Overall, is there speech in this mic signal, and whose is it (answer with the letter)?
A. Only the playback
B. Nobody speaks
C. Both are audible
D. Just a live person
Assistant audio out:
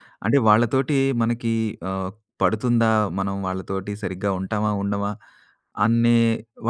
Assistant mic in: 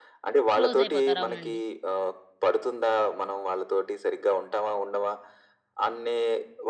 C